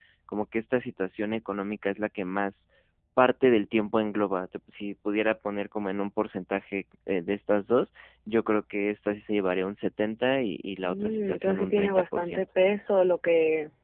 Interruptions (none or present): present